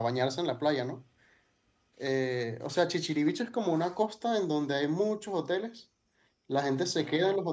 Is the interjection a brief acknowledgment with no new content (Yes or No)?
Yes